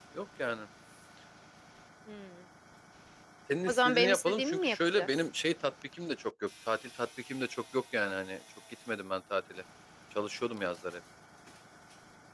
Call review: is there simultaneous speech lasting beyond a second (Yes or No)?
Yes